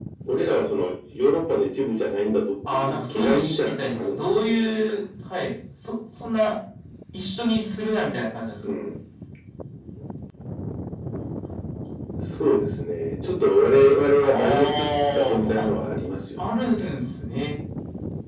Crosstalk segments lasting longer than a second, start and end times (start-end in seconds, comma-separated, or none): 2.7-4.9, 14.2-15.7